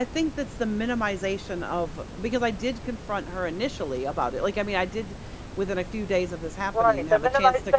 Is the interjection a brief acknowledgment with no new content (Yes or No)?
No